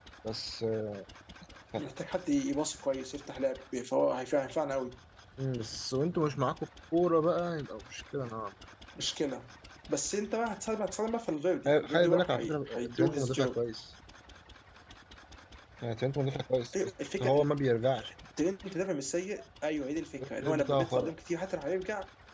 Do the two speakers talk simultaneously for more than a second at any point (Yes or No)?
Yes